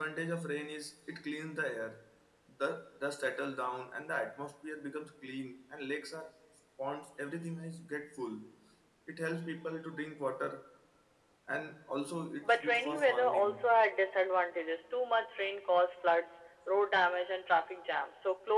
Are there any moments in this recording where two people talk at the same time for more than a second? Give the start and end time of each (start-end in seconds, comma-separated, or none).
12.4-13.7